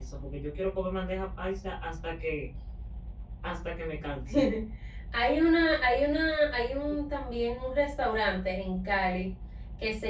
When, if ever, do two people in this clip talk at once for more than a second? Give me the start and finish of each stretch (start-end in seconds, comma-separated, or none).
none